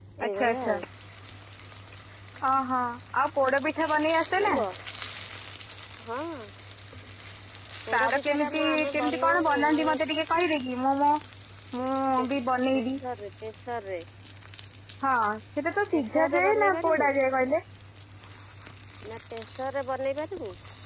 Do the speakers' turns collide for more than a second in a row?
Yes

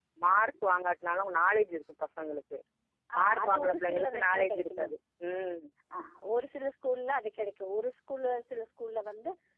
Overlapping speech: Yes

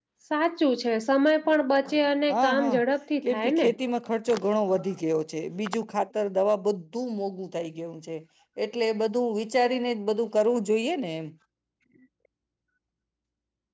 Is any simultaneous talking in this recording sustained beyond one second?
No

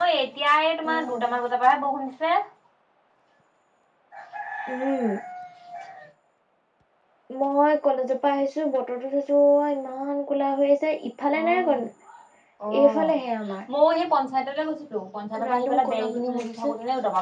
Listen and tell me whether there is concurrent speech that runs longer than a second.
Yes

